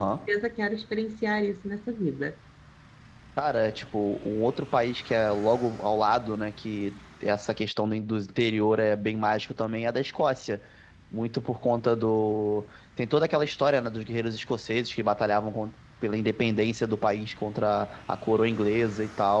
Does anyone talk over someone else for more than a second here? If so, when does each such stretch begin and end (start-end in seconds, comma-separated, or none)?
none